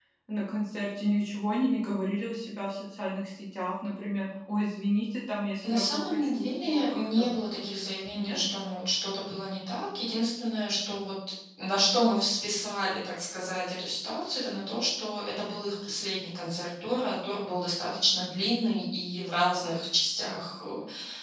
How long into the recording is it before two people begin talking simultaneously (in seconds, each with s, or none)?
5.6 s